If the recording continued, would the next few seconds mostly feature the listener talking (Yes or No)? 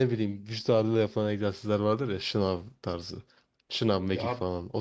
No